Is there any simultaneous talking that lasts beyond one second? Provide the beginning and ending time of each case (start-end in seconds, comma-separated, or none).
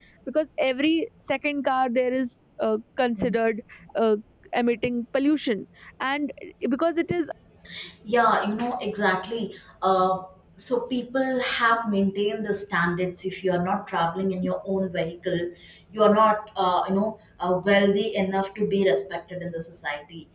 none